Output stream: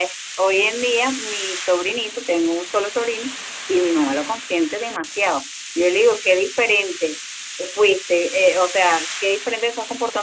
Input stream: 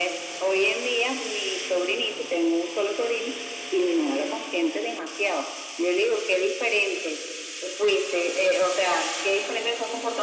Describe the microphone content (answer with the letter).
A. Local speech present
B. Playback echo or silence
B